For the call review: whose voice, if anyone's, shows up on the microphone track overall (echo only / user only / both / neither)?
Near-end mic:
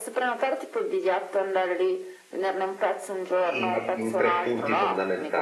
both